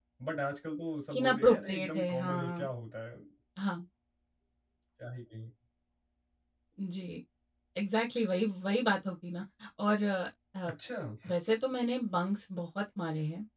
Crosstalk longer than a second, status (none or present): present